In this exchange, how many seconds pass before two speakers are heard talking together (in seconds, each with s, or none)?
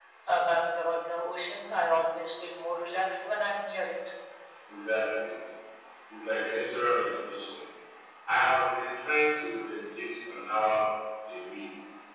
none